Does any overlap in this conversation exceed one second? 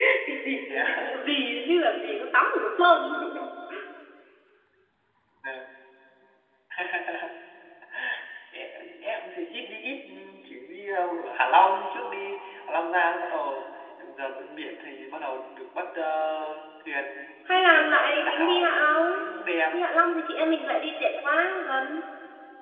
Yes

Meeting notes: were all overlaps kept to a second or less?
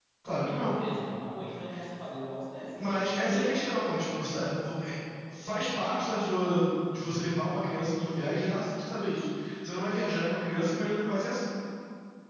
Yes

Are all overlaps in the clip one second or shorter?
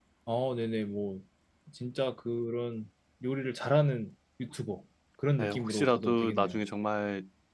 No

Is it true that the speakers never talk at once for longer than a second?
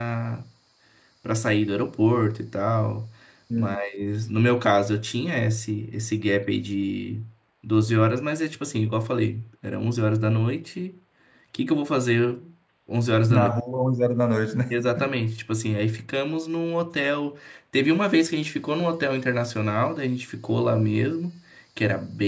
Yes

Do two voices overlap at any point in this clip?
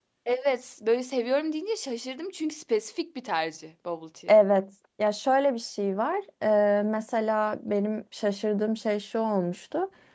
No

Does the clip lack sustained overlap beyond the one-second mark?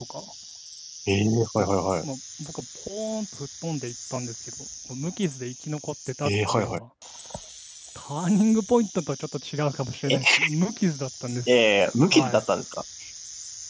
Yes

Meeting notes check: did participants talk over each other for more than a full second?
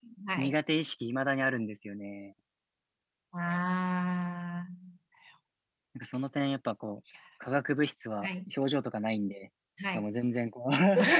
No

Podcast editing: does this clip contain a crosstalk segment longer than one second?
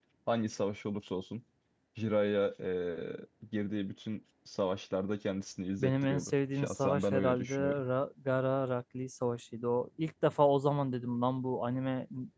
Yes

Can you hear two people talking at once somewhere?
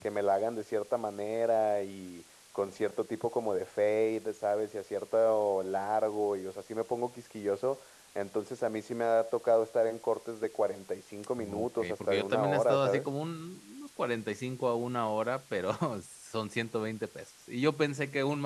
Yes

